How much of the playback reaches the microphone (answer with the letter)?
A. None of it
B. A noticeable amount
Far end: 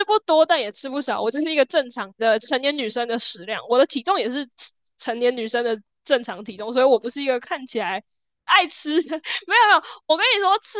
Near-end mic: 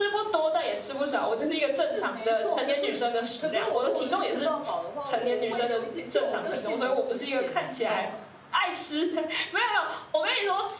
B